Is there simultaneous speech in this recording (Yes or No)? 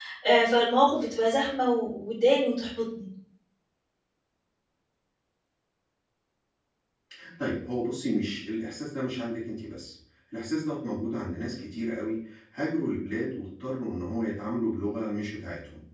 No